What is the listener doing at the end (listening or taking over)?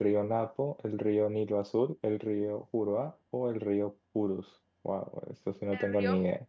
taking over